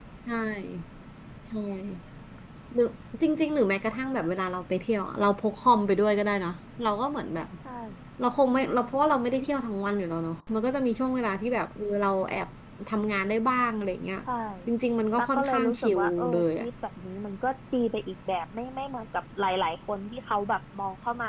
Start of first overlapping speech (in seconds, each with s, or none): 15.2 s